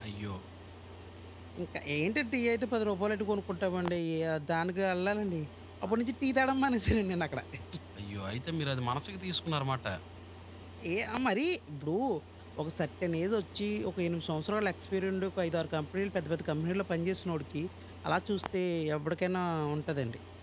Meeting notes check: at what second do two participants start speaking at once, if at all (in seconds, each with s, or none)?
none